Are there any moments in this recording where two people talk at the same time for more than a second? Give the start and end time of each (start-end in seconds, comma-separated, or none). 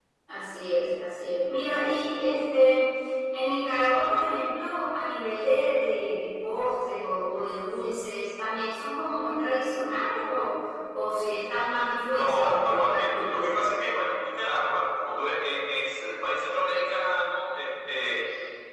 12.1-13.5